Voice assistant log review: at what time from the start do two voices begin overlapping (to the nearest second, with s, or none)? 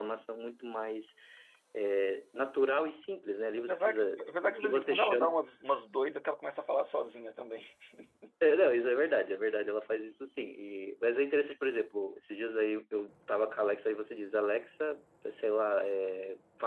4 s